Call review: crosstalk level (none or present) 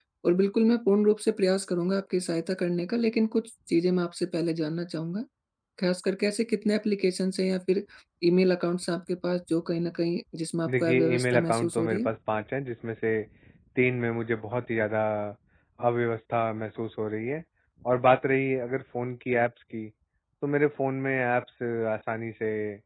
present